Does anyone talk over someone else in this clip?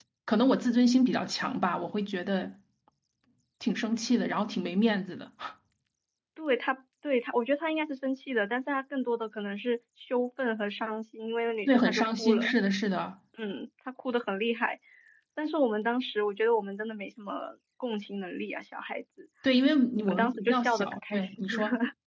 Yes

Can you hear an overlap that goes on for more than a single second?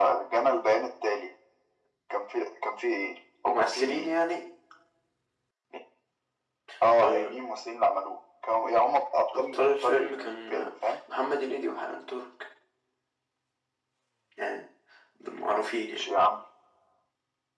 Yes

